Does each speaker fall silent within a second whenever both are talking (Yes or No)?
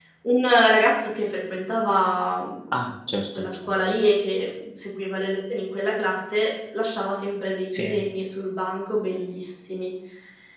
Yes